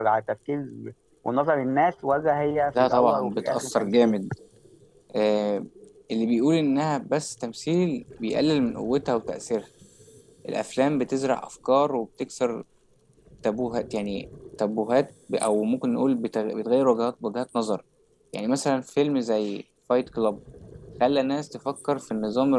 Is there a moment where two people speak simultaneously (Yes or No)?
Yes